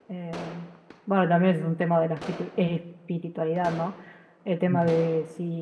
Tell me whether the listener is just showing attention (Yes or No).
Yes